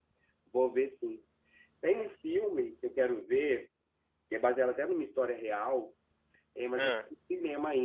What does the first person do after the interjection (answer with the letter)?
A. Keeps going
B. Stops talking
A